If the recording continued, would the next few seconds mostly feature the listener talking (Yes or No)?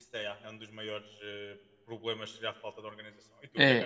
Yes